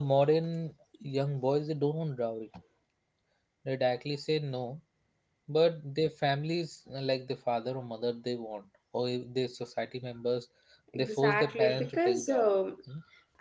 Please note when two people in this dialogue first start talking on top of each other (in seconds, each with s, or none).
10.9 s